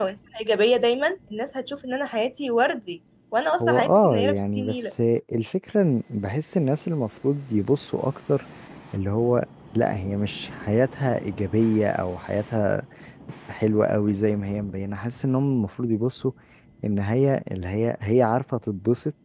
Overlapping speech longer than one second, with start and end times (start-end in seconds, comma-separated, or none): 3.6-4.9